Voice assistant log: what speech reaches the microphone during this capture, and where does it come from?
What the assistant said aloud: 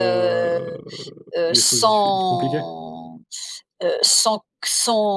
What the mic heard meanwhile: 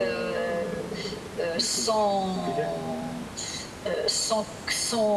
echo only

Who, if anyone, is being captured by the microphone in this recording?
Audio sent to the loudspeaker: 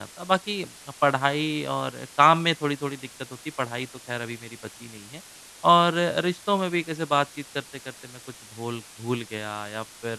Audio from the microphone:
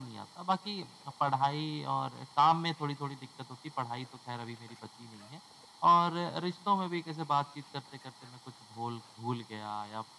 echo only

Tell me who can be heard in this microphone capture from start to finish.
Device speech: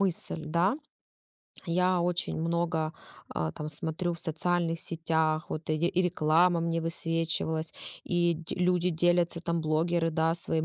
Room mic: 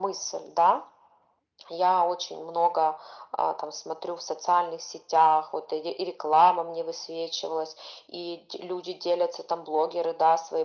echo only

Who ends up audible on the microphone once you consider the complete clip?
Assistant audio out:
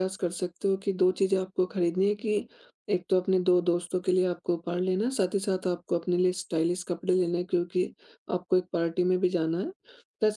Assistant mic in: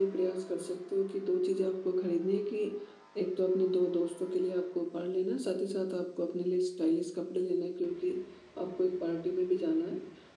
echo only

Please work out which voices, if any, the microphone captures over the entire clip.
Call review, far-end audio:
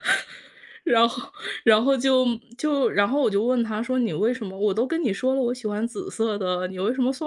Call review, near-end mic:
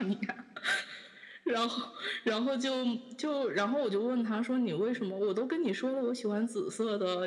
echo only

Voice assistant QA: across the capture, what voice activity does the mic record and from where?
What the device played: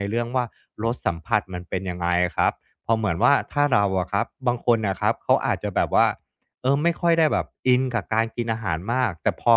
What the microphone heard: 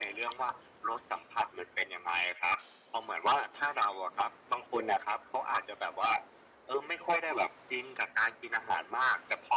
echo only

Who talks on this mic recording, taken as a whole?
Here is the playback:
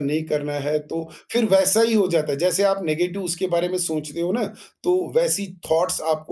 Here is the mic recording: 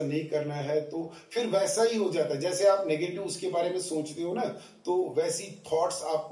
echo only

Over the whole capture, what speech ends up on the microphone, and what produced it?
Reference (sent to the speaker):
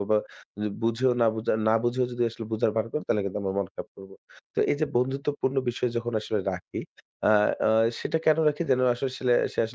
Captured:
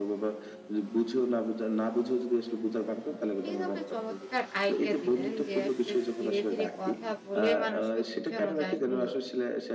both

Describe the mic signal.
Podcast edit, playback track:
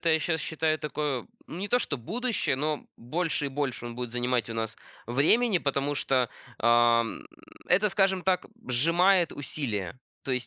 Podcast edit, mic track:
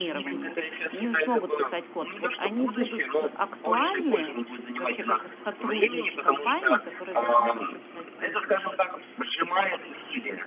both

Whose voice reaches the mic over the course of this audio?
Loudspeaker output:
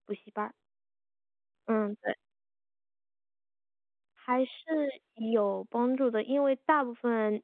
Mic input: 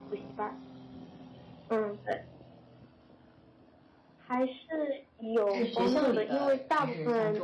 both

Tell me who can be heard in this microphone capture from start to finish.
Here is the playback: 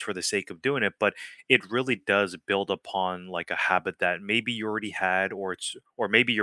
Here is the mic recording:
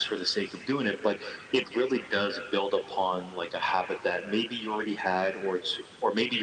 echo only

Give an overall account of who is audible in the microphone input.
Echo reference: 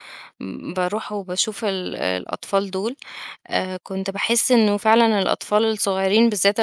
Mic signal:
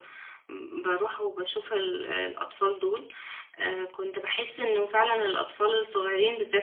echo only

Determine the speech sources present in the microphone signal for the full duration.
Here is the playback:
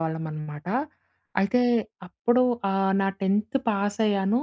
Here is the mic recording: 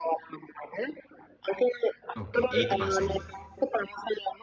both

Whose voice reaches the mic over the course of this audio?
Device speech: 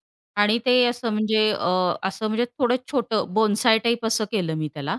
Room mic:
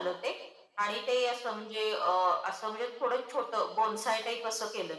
echo only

